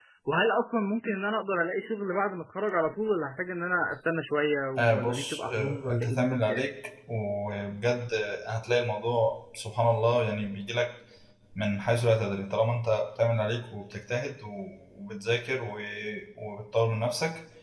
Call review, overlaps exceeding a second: present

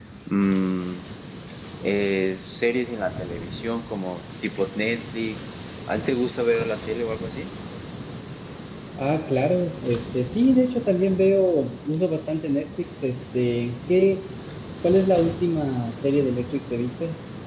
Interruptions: none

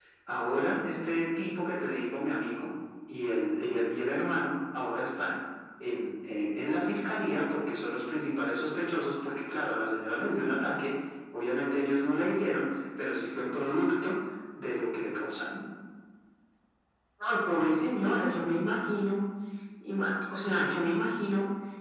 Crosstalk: none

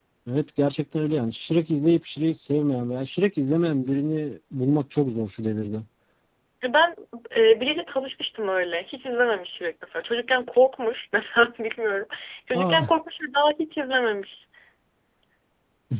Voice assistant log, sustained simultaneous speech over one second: none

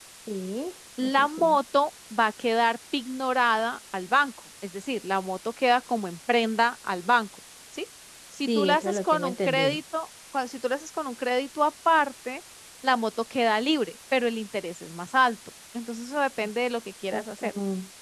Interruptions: present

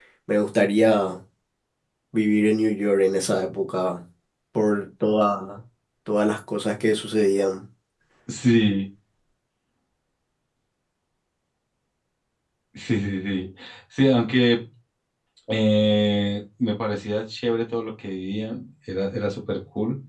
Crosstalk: none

